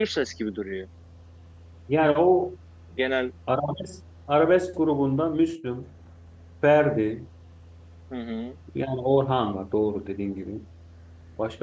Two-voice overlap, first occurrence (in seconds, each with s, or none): none